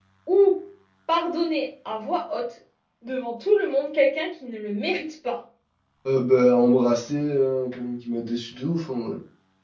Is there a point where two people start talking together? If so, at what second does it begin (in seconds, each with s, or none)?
none